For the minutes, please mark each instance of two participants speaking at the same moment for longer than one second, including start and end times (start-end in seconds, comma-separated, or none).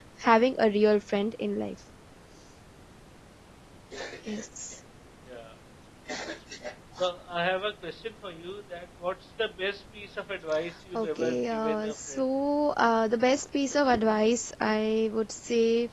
10.9-12.3